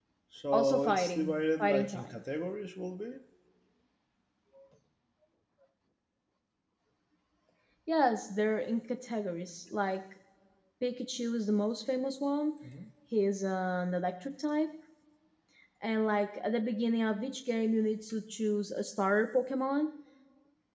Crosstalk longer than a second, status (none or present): present